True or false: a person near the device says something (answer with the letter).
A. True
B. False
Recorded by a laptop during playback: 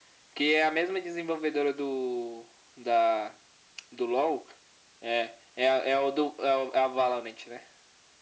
B